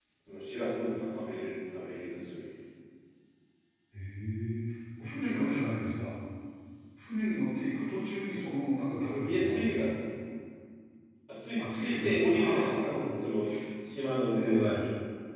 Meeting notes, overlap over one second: present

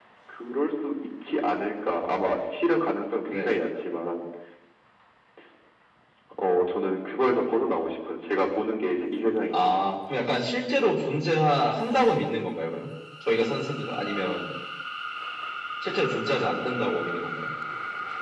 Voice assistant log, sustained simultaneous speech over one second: none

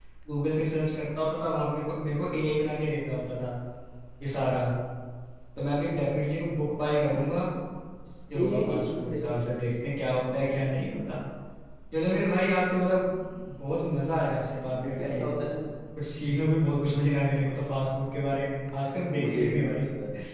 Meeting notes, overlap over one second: present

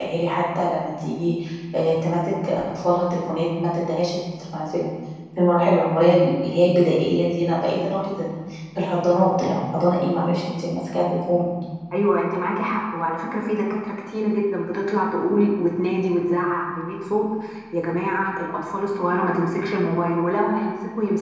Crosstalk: none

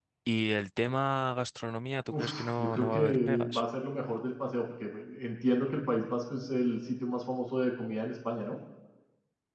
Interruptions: present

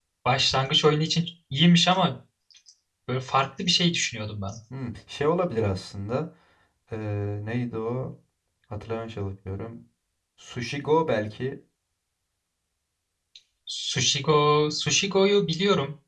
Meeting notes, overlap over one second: none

